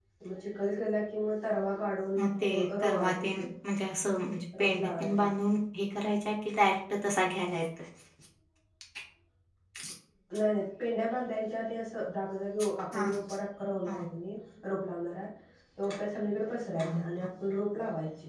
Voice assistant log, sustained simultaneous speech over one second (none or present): present